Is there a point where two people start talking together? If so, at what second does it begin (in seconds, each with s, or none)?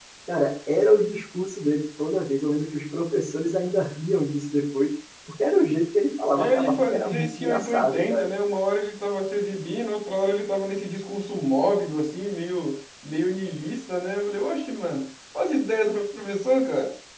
6.3 s